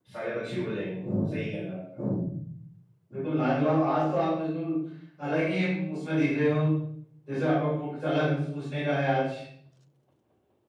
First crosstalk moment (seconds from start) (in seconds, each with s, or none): none